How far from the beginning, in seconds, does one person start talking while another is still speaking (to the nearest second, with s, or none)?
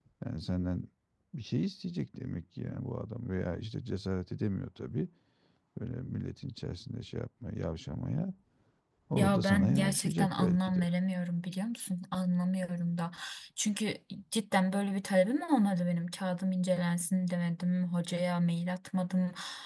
9 s